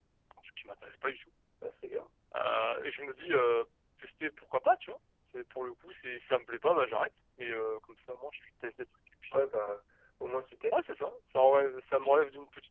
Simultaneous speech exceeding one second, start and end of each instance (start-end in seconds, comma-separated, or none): none